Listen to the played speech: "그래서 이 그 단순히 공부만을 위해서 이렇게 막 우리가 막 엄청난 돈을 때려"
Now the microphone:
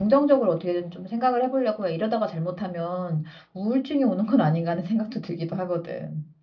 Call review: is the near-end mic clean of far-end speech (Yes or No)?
Yes